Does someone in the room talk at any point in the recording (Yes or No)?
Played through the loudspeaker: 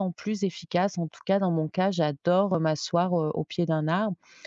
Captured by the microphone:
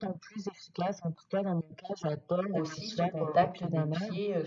Yes